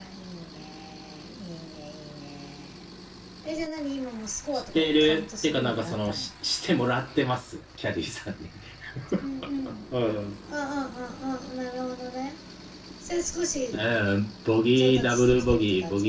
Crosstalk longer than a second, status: present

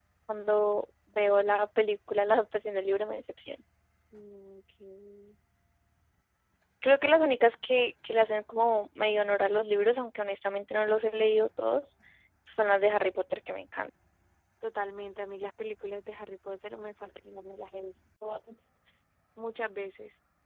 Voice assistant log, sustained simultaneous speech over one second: none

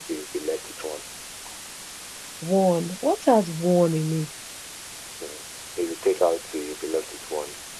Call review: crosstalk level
none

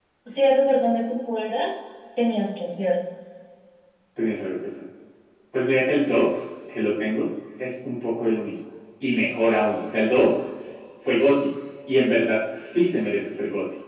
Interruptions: none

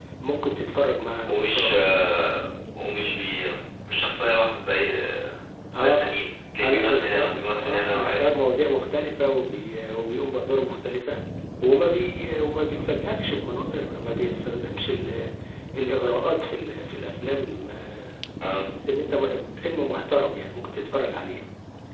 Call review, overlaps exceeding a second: present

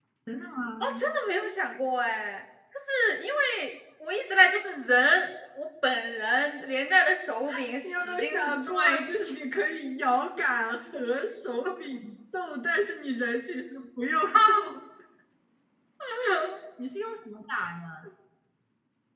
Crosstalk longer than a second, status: present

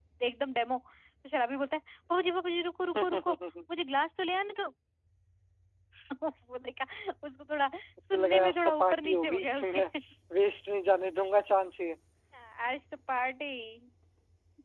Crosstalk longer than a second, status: present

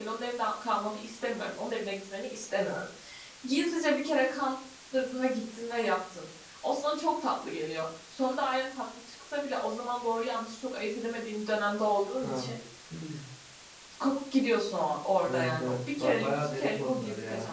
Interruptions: present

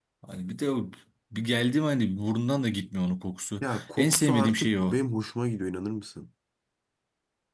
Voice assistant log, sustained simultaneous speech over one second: present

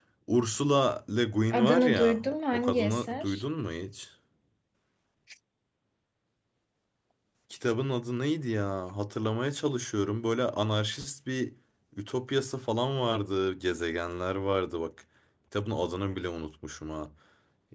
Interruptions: present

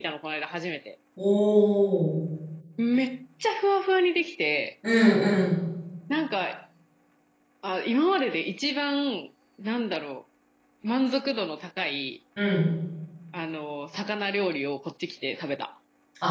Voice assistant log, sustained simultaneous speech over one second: none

